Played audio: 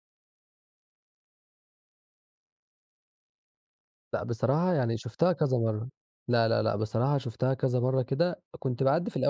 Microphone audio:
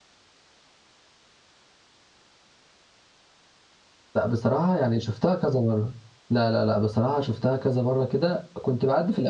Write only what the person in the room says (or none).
none